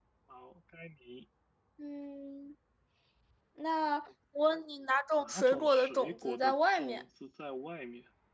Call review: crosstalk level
present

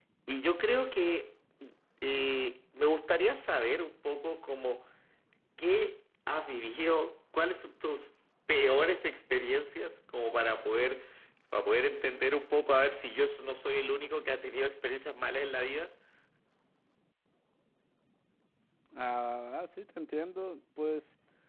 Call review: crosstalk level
none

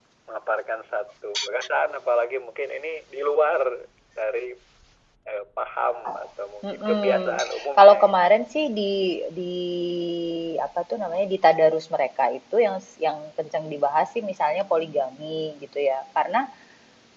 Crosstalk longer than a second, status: present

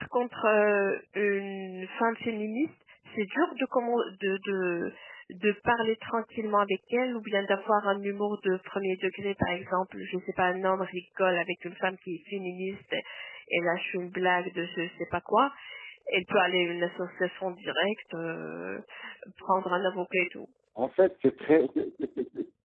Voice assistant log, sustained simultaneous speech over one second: none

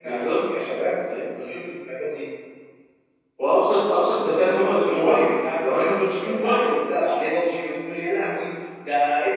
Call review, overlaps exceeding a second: present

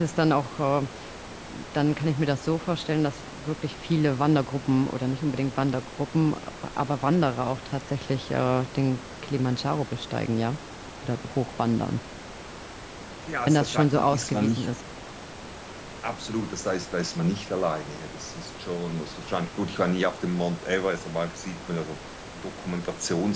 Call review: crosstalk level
present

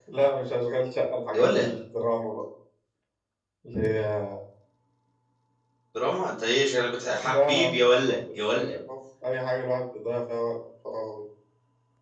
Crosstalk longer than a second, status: present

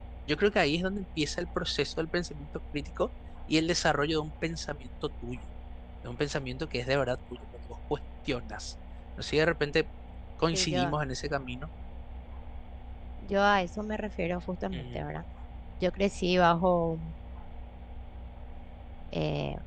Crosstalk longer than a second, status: none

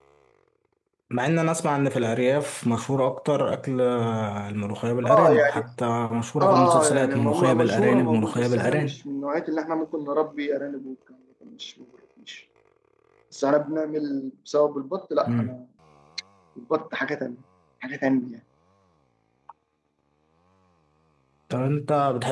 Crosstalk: present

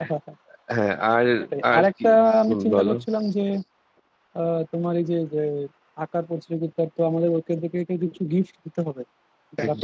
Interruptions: present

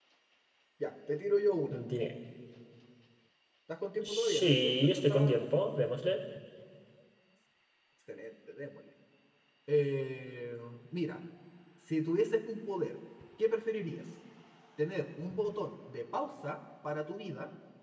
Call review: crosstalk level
present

